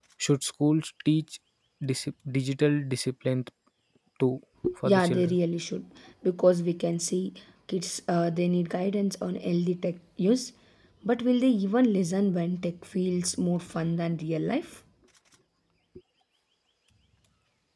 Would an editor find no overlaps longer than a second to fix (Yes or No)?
Yes